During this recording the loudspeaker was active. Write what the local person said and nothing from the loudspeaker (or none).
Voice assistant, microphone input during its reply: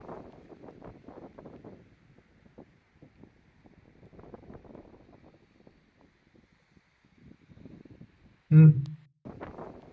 嗯